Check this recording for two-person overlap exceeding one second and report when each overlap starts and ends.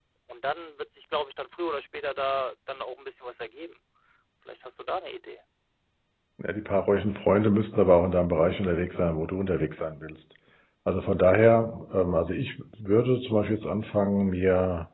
none

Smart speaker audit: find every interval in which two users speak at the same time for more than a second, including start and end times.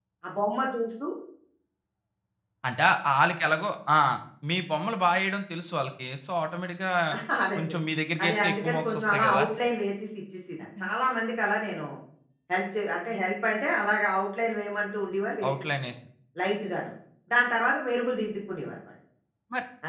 8.2-9.4

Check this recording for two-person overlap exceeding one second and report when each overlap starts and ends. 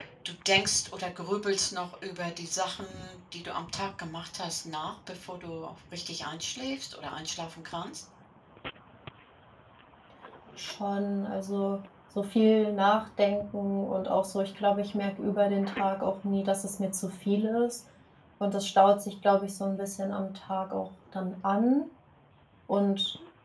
none

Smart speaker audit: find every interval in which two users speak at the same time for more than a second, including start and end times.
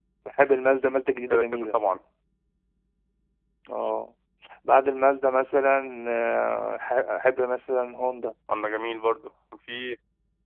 none

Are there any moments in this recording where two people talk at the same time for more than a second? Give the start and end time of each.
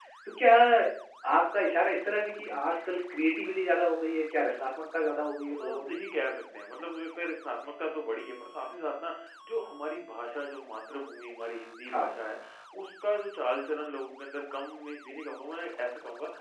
none

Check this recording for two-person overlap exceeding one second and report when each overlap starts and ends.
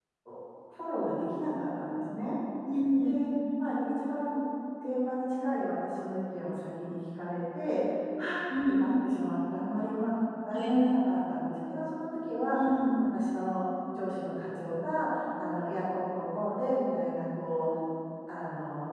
none

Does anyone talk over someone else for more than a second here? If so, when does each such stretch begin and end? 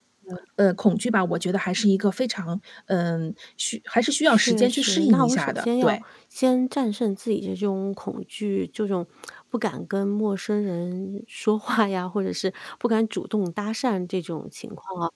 4.3-6.0

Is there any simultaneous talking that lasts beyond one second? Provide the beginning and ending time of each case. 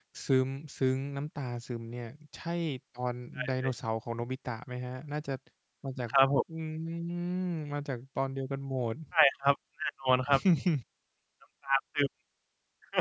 none

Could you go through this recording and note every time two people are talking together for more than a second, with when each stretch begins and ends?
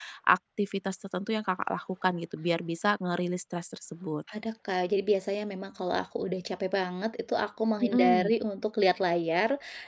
none

